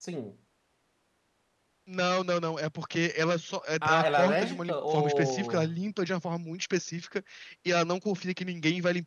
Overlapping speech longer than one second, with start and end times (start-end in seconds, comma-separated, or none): 3.8-5.7